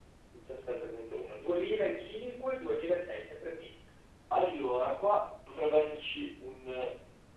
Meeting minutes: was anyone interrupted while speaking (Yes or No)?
No